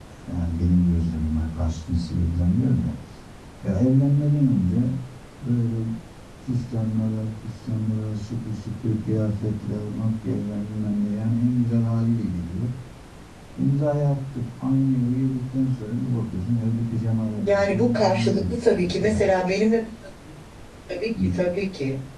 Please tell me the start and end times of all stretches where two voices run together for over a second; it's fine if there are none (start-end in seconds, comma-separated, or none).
17.4-19.3